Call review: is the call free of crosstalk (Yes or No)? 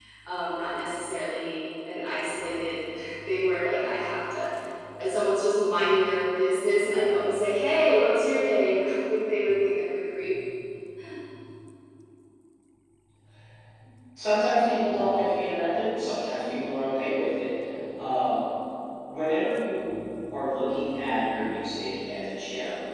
Yes